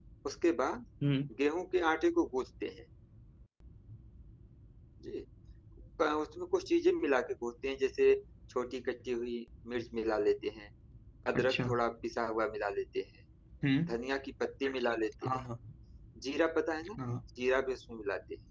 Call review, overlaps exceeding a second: none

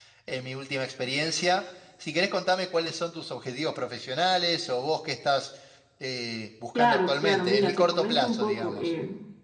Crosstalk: present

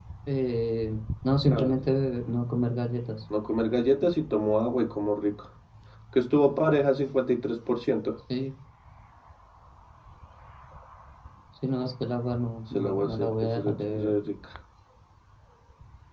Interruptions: present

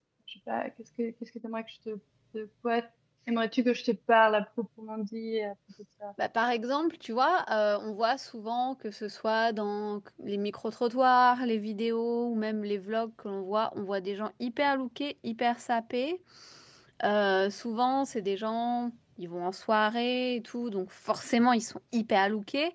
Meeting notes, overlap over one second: none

